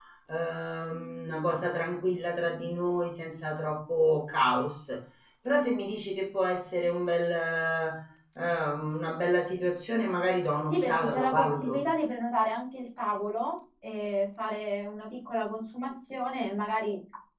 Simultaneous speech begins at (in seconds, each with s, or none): 10.6 s